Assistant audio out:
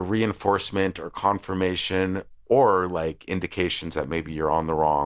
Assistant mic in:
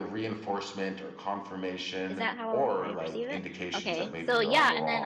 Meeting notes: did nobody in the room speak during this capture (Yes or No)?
No